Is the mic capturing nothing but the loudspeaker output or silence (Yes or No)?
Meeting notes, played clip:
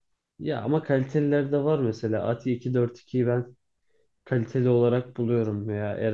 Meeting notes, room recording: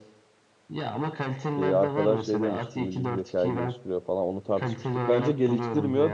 No